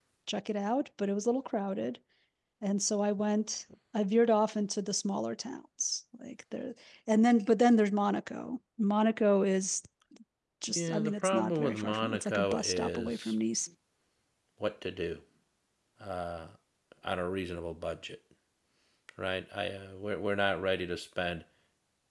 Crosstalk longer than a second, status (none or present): present